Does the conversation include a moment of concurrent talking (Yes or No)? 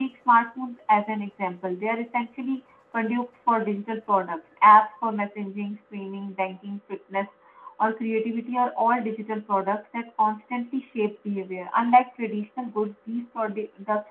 No